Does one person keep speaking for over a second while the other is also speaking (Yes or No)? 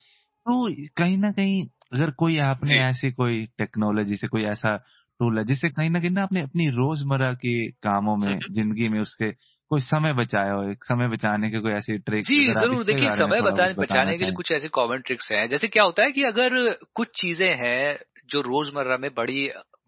Yes